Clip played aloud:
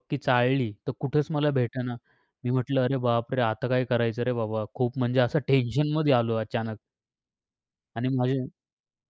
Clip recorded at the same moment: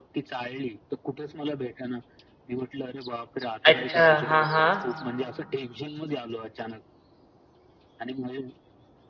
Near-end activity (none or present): present